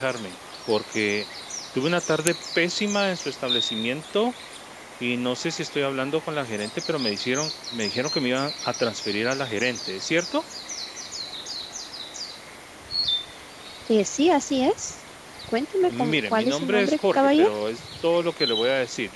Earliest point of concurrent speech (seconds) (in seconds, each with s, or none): 15.8 s